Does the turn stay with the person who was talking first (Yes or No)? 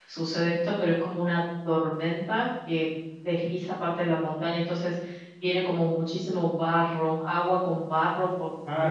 No